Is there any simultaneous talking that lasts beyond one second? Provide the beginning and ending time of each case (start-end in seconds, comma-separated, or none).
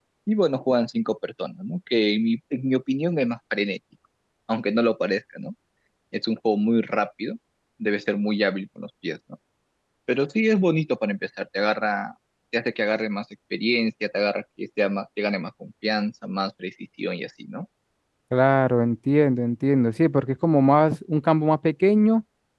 none